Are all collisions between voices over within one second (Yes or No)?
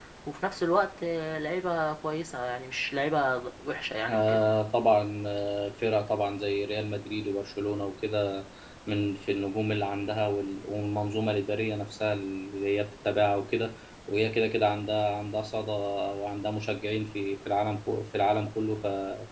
Yes